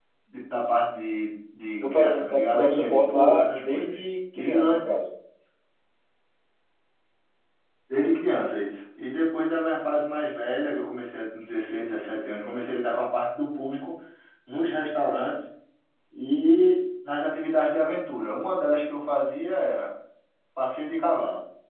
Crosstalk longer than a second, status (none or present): present